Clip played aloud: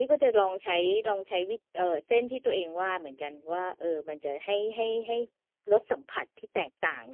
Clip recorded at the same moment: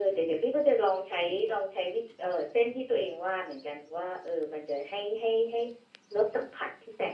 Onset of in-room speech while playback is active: none

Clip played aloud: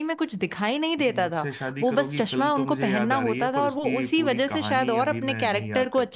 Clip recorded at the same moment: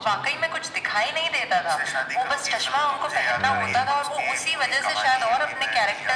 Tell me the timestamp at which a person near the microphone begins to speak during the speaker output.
3.4 s

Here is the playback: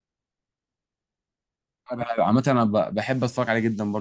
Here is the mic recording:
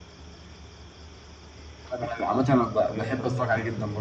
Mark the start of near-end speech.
2.8 s

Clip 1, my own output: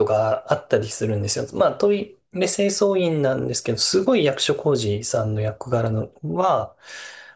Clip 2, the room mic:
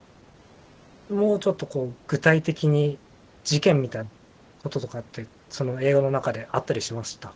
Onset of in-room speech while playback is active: 1.1 s

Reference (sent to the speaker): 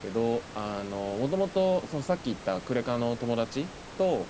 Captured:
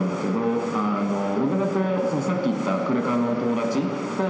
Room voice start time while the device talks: none

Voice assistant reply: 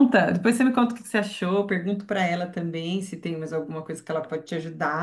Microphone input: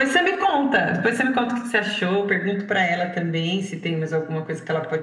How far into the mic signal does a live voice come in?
none

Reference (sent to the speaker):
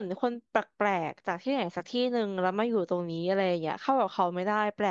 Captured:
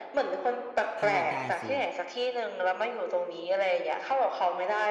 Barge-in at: 1.0 s

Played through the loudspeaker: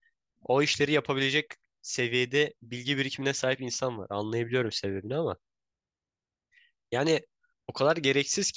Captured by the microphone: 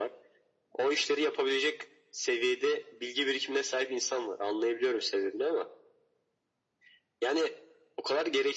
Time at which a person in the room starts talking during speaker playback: none

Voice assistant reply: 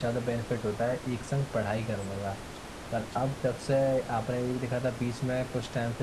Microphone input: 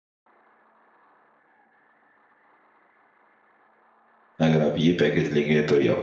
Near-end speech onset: 4.5 s

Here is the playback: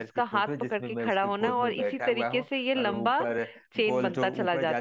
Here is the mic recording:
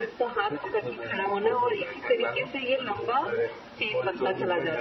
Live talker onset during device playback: none

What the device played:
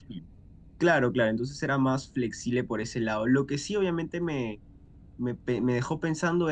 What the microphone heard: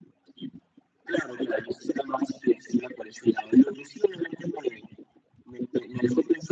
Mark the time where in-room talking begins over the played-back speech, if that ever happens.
none

